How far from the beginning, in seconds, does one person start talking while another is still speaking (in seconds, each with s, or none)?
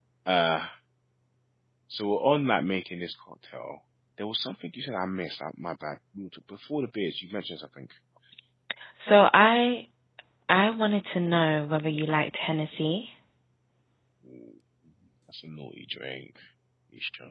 none